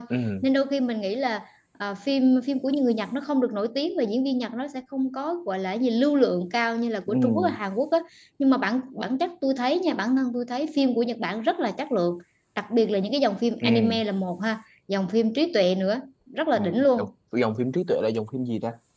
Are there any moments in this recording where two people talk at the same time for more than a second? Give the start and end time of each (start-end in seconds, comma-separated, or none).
none